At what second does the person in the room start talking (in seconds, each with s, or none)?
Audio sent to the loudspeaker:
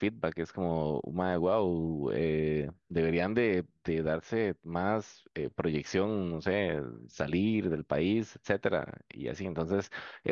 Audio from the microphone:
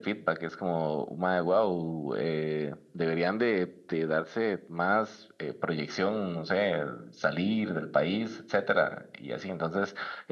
none